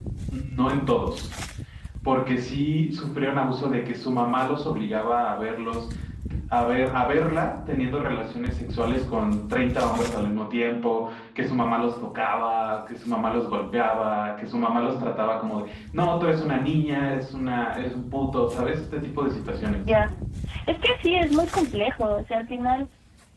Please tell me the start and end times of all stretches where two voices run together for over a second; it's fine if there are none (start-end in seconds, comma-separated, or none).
none